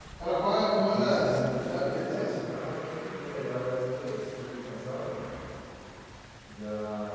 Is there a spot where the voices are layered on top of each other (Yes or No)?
Yes